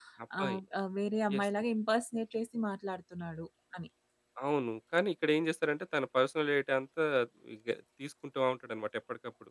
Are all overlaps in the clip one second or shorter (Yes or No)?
Yes